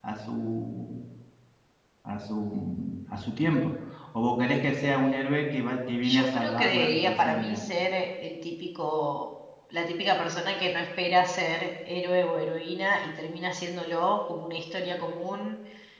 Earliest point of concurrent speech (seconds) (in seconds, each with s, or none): 6.0 s